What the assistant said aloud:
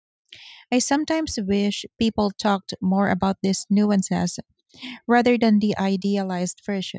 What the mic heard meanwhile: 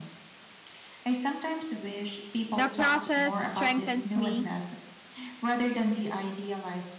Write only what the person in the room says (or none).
The process strengthens me